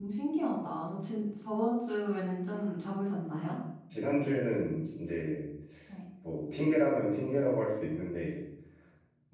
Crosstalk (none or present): none